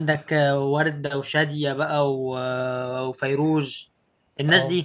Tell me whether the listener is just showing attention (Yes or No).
No